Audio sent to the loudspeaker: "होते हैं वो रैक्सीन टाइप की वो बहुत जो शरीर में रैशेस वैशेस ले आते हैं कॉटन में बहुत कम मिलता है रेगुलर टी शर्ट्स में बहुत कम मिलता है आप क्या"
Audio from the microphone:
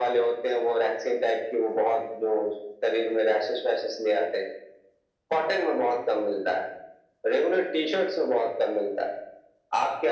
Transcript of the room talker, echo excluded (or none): none